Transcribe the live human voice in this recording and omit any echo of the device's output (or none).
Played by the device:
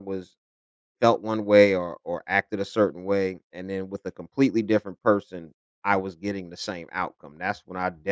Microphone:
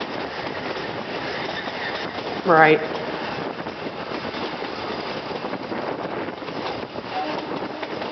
Right.